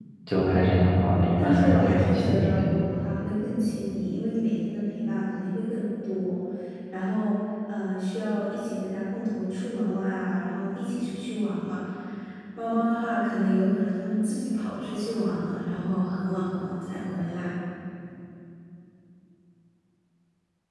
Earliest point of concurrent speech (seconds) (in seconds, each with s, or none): 1.4 s